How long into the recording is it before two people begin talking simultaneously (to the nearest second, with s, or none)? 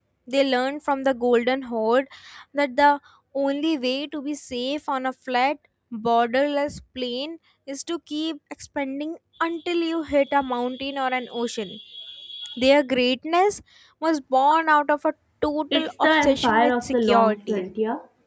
16 s